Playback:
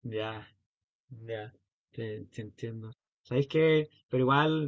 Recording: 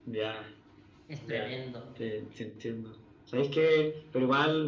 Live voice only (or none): Es tremendo. Eh,